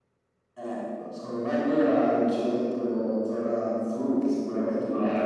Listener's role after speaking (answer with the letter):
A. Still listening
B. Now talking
B